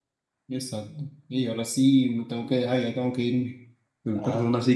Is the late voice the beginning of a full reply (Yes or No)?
No